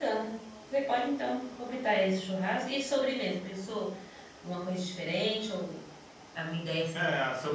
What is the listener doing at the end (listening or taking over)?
taking over